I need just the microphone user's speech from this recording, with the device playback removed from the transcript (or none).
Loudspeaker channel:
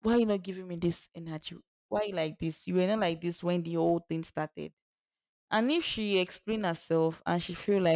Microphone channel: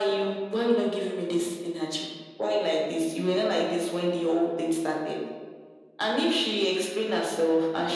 none